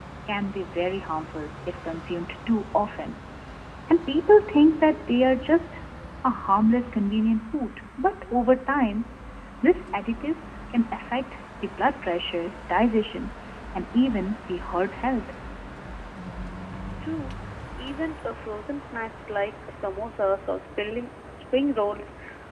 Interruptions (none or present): none